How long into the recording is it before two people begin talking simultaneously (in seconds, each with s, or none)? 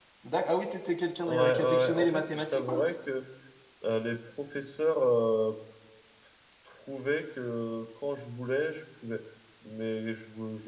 1.3 s